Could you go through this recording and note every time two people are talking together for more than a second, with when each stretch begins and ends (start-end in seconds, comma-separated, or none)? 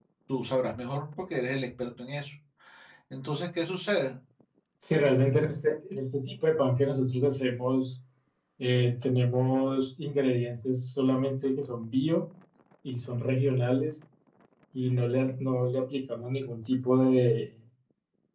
none